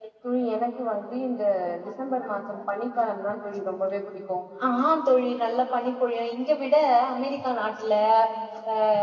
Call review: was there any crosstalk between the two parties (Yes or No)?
No